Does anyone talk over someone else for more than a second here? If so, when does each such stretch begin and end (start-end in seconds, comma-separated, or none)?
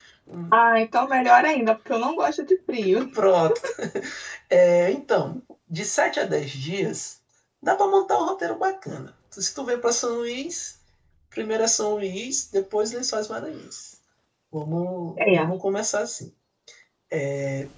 none